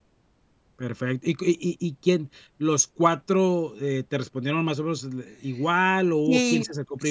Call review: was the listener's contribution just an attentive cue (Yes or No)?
No